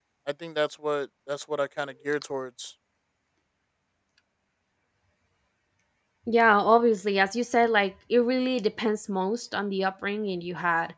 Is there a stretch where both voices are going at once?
No

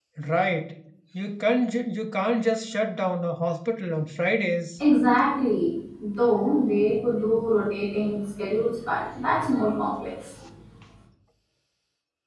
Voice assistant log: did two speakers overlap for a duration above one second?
No

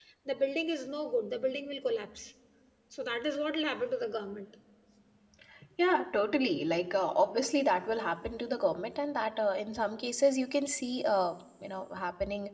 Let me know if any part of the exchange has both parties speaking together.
No

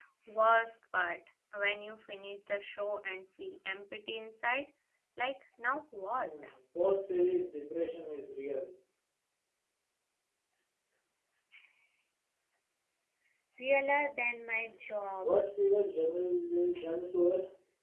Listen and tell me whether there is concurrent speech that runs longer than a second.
No

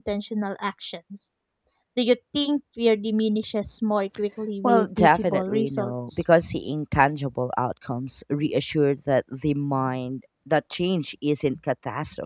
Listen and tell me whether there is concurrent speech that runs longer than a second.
Yes, from 4.6 s

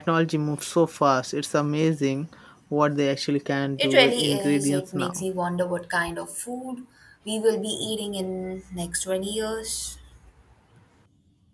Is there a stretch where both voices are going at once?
Yes, from 3.8 s

